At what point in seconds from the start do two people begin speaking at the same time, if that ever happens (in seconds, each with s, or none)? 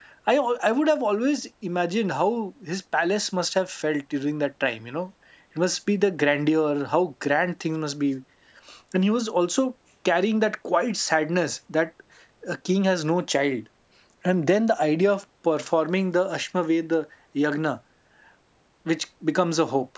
none